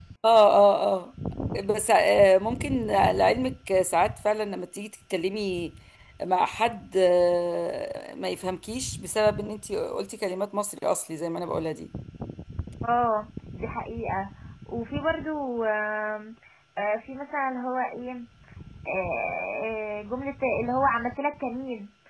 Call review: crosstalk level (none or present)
none